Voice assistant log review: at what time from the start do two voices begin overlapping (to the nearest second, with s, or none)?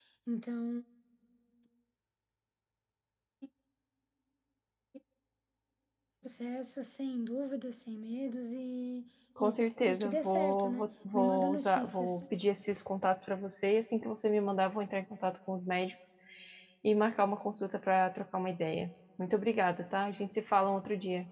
9 s